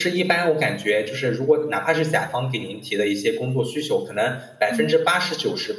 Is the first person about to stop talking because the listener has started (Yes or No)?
No